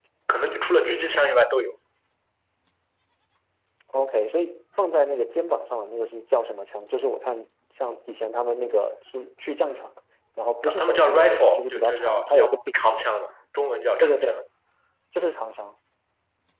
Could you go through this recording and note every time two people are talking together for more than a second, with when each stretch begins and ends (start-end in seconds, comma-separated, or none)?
10.6-12.7